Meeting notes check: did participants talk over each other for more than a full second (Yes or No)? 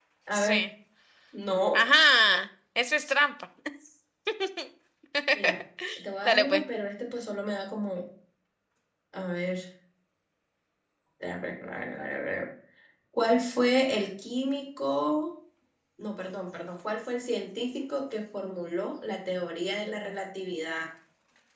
No